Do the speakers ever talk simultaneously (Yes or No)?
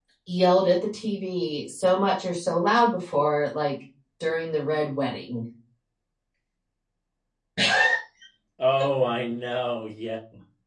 No